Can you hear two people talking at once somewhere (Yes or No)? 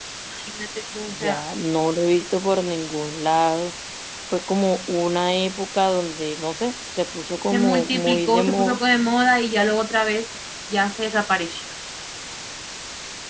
Yes